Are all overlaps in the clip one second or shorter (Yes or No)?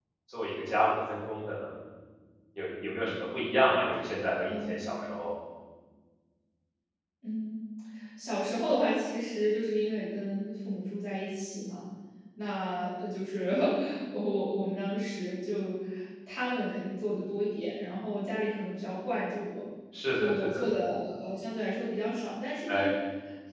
Yes